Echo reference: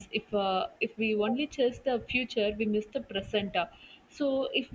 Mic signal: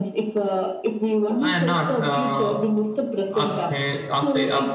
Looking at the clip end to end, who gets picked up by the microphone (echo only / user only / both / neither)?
both